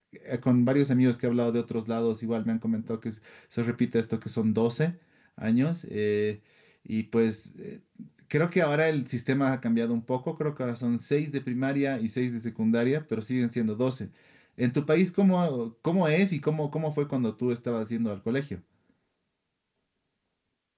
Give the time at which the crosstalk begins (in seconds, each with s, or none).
none